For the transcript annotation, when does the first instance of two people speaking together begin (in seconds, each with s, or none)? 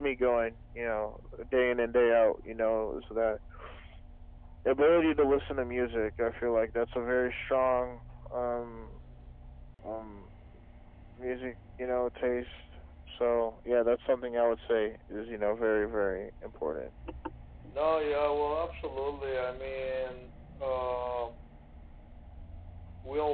none